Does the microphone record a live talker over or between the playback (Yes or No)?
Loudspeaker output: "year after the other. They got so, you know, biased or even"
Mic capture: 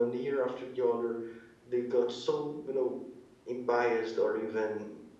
No